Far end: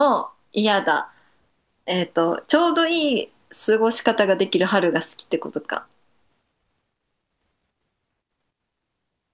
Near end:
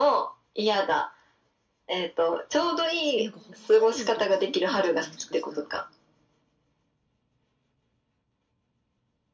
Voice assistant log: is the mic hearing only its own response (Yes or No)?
No